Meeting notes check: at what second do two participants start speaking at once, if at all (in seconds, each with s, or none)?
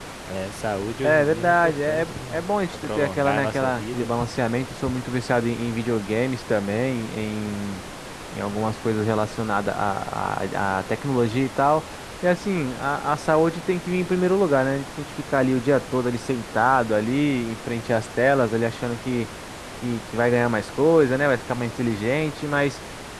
1.0 s